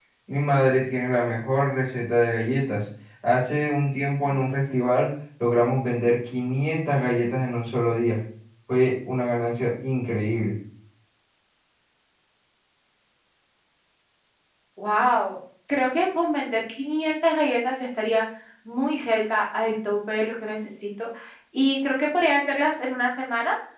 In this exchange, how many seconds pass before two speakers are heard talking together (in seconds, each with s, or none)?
none